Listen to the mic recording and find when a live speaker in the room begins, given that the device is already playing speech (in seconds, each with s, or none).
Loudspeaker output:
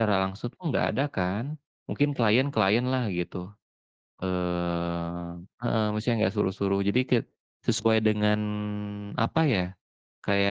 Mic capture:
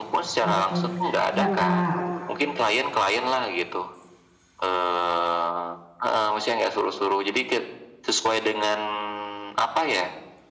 0.4 s